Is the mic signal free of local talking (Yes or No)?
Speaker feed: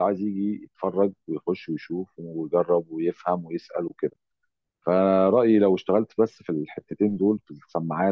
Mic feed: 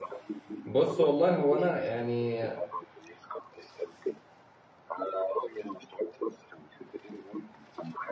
No